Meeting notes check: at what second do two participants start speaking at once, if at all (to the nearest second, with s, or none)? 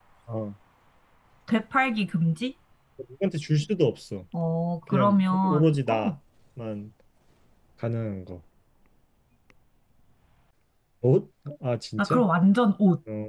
5 s